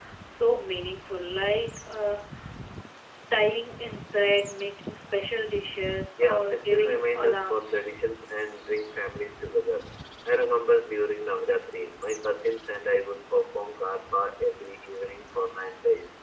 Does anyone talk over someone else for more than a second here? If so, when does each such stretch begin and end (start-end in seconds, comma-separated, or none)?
6.2-7.8